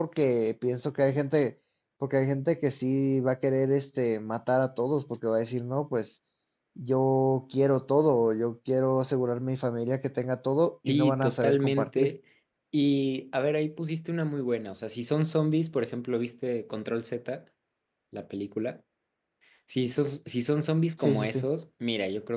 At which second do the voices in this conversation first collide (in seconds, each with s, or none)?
10.8 s